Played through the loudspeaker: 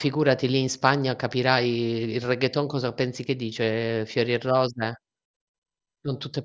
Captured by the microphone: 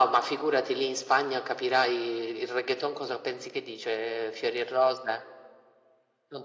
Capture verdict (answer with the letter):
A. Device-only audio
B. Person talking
A